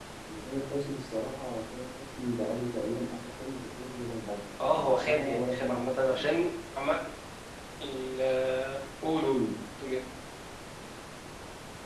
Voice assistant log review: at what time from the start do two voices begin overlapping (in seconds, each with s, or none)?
4.6 s